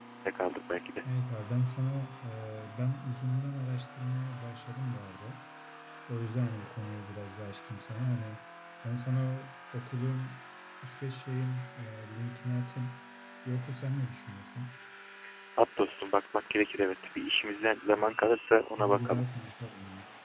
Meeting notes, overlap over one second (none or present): none